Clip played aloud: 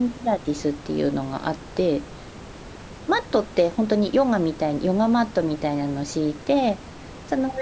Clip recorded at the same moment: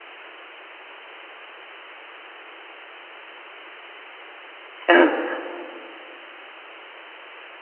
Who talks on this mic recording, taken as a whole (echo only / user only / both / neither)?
user only